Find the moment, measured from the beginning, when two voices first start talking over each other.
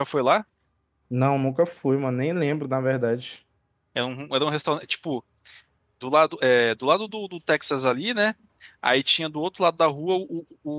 none

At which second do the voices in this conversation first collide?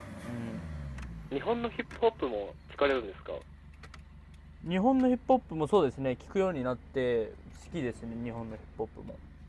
none

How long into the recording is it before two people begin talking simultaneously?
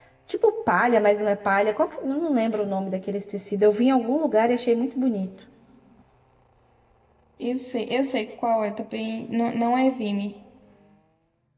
none

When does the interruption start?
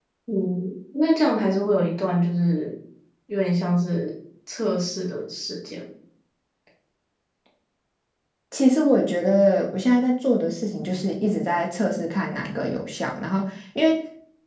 none

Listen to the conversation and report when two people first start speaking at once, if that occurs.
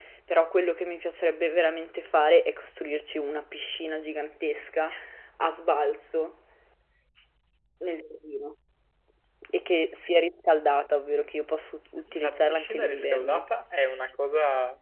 12.1 s

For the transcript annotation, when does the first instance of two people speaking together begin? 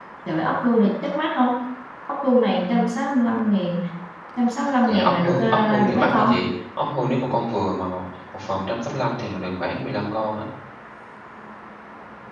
4.9 s

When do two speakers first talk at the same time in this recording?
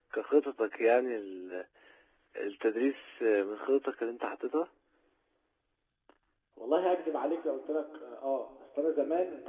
none

